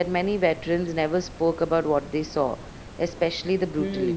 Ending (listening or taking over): taking over